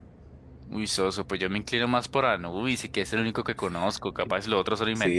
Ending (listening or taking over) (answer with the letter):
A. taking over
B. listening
A